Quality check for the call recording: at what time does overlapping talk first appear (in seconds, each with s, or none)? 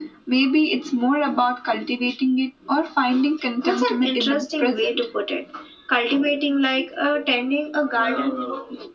3.6 s